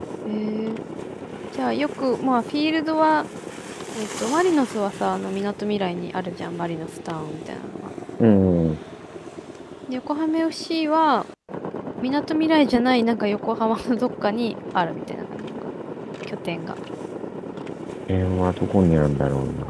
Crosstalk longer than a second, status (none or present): none